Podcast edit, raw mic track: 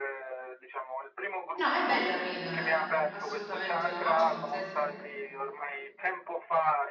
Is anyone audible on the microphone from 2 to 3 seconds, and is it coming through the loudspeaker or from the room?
both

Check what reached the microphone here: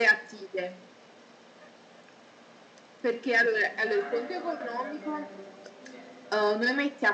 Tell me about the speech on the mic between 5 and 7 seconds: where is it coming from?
both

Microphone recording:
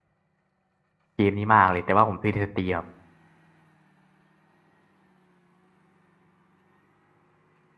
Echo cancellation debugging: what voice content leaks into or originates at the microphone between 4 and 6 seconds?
neither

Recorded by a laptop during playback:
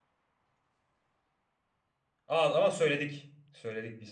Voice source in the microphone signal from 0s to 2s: neither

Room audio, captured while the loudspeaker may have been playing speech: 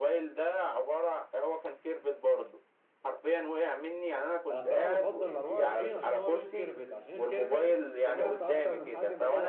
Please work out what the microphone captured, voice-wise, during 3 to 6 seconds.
both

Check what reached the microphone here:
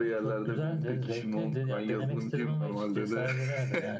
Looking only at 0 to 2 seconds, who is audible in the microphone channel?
echo only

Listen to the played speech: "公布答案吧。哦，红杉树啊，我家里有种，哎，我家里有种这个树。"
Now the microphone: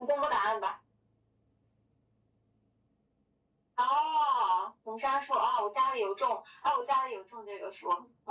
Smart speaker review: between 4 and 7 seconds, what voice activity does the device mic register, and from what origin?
echo only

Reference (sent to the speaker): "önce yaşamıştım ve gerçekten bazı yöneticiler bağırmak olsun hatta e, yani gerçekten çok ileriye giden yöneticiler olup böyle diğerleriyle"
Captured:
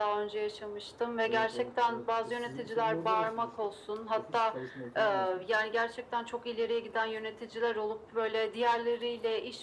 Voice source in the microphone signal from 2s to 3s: both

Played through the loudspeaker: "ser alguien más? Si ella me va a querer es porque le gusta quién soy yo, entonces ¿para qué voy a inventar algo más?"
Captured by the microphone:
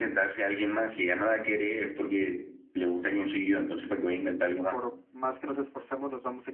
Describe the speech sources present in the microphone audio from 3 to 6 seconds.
both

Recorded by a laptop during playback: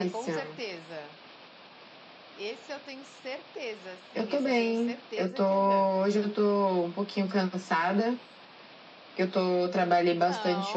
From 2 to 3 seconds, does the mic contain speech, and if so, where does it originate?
user only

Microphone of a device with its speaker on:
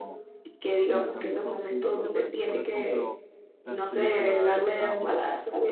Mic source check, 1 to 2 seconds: both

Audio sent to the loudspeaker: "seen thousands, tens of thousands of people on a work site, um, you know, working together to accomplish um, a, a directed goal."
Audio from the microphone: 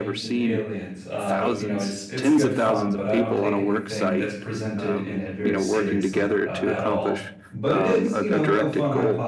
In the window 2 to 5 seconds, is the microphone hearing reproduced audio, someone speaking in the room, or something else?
both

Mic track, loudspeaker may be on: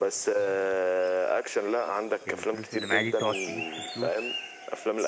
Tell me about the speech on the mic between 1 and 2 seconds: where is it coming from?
echo only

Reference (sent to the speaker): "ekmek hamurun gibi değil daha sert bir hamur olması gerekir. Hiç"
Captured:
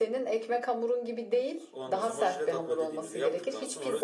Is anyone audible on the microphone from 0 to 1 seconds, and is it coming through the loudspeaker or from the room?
echo only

